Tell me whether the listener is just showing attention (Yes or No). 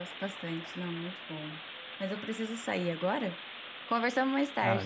No